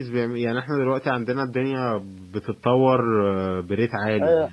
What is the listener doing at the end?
taking over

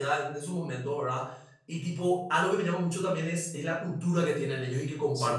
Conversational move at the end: taking over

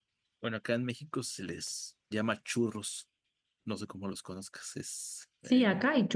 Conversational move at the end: taking over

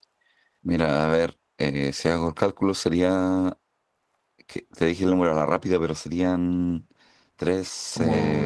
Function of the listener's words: taking over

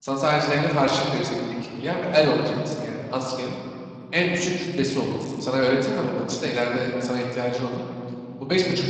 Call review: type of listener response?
listening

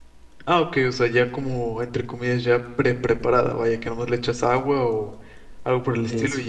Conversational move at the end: listening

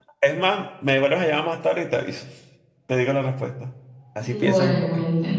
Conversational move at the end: taking over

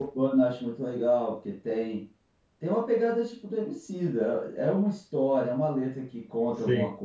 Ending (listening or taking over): listening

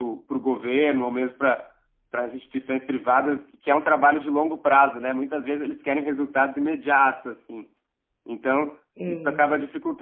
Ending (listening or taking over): listening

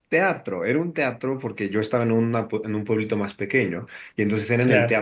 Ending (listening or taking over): listening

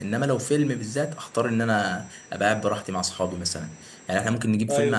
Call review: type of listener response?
listening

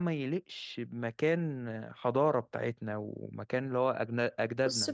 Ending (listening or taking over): taking over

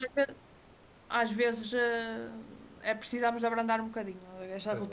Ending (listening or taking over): listening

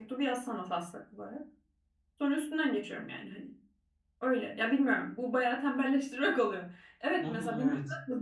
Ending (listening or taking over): listening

